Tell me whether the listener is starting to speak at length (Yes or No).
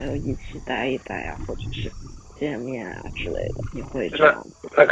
Yes